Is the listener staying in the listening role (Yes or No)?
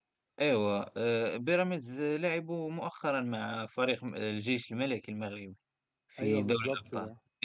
No